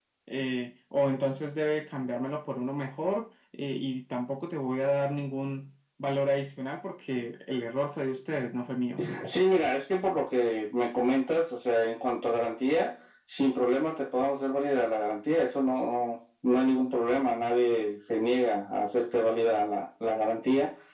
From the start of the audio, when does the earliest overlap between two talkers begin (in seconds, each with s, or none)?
none